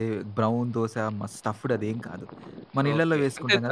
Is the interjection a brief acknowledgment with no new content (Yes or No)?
No